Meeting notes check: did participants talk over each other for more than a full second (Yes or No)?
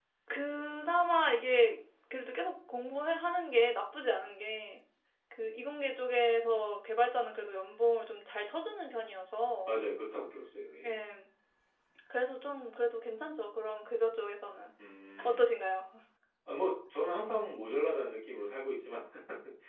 No